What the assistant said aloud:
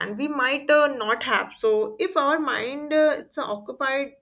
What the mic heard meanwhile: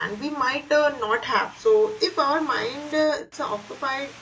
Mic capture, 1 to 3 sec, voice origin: echo only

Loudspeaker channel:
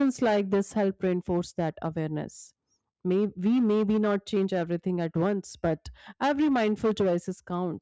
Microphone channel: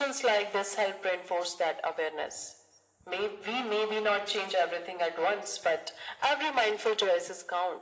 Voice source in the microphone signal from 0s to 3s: echo only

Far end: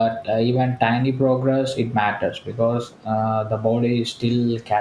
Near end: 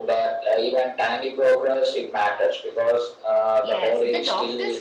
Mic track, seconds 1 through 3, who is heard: echo only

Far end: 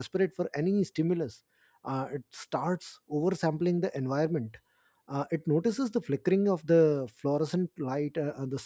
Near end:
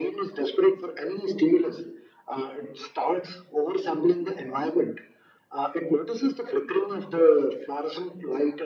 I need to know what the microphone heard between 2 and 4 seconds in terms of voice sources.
echo only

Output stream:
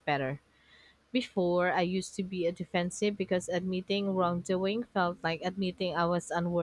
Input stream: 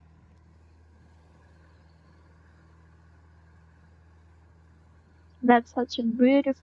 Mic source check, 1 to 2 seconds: neither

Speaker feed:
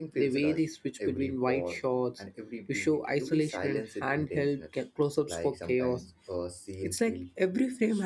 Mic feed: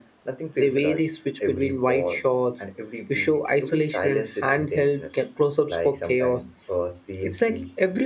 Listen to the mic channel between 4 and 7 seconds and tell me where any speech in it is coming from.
echo only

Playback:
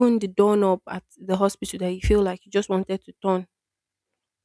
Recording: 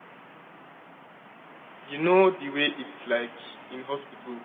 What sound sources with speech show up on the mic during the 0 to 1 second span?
neither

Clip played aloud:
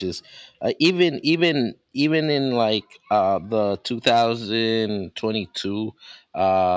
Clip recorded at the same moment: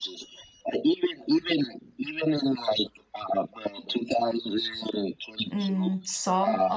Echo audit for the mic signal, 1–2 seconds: echo only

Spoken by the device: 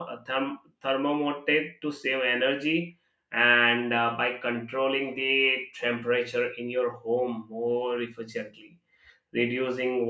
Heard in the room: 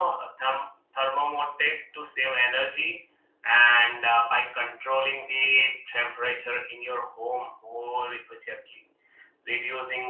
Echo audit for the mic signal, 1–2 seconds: echo only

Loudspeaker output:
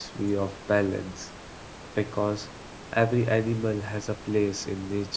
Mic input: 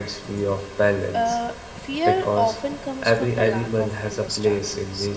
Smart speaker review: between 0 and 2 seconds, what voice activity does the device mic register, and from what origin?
both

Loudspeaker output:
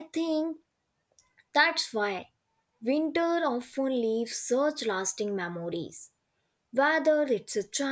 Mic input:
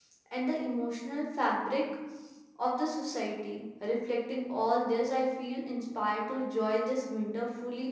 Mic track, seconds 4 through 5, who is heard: user only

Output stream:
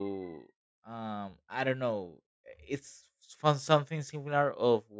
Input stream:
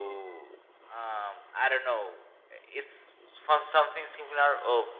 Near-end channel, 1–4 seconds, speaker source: echo only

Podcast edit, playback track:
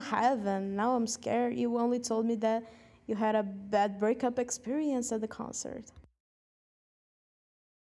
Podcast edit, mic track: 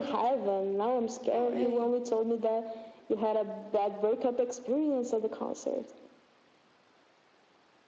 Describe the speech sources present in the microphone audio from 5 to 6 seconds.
echo only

